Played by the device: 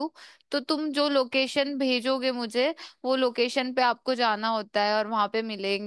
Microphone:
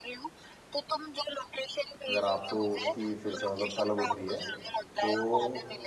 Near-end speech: present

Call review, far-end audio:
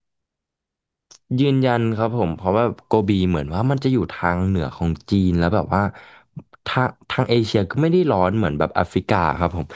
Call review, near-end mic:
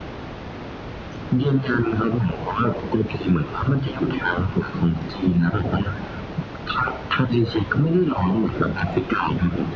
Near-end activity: none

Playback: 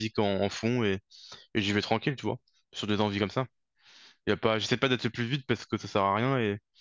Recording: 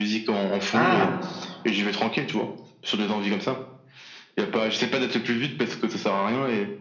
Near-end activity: present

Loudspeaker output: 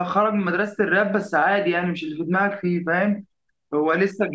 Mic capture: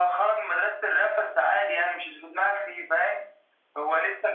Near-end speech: none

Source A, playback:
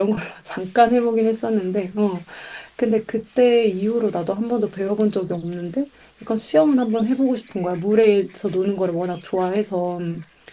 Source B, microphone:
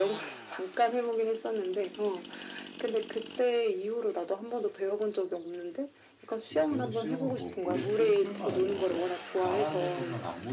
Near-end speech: present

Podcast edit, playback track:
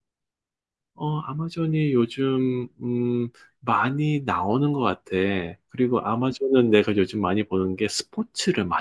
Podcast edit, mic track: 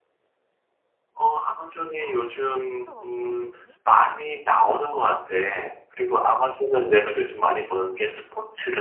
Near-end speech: present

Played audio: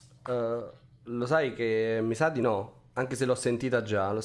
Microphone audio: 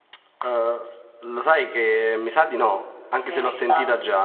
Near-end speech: present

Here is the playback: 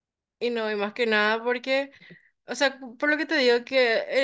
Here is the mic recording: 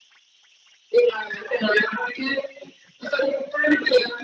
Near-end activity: none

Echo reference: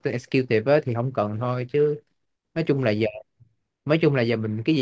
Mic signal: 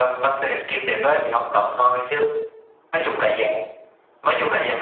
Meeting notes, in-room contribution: none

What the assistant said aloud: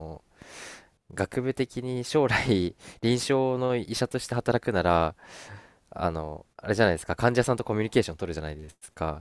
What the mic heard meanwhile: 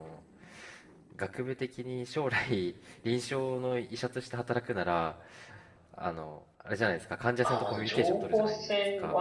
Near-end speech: present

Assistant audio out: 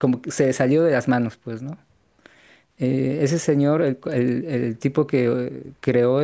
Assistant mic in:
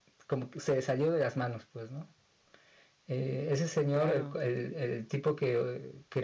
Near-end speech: present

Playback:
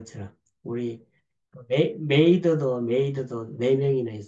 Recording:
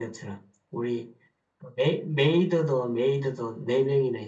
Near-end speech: none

